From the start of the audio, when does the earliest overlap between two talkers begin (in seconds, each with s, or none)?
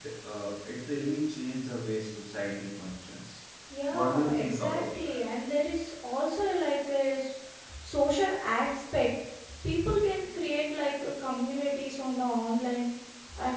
3.9 s